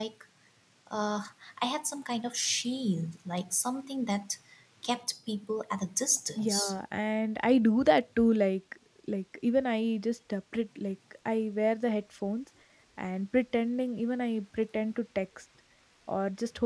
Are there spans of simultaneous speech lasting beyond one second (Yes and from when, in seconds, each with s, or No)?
No